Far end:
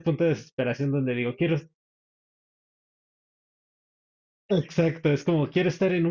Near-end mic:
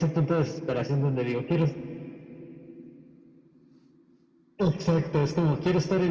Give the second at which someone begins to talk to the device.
none

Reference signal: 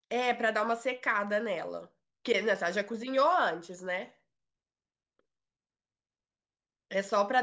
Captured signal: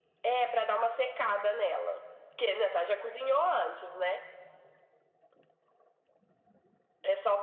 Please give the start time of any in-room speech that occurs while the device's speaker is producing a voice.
none

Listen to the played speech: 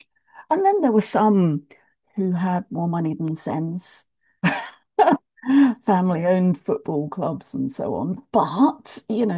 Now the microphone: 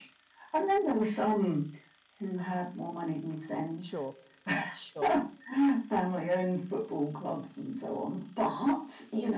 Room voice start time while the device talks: 3.8 s

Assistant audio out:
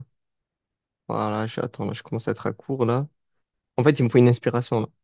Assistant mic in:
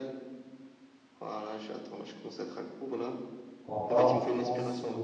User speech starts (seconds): 3.7 s

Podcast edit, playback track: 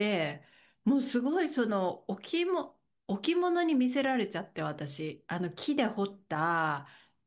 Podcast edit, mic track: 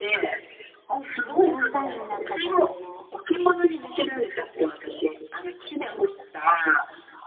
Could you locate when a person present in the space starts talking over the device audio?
1.2 s

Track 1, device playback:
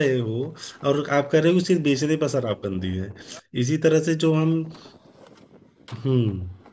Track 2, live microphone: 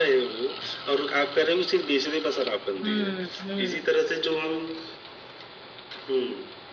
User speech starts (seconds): 2.8 s

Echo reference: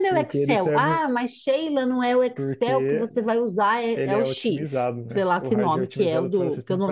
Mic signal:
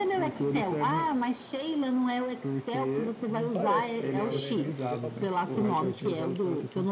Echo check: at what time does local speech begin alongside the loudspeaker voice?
3.3 s

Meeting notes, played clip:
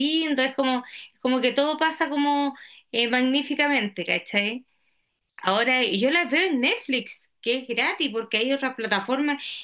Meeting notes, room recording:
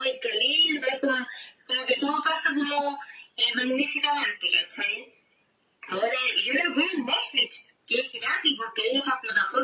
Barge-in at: none

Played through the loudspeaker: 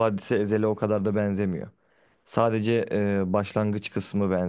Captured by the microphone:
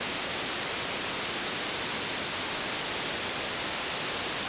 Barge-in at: none

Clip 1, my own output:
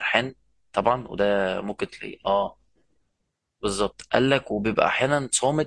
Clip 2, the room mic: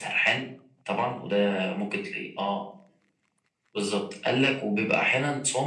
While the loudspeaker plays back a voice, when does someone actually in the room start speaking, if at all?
none

